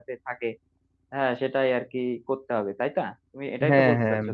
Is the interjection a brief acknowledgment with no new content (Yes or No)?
No